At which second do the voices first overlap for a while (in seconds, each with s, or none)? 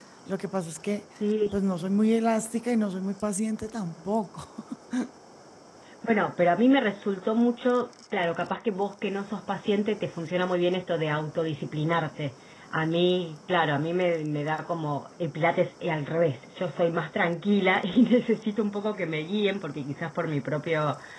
none